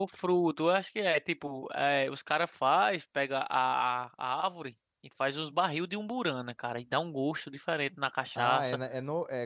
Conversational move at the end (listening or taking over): taking over